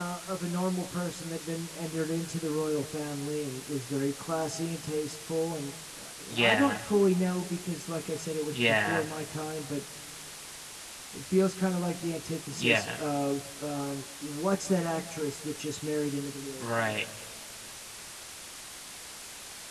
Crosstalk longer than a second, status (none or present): none